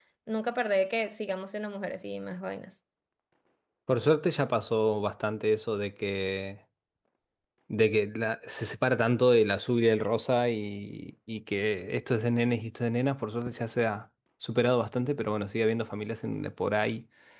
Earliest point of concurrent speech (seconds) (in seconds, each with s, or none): none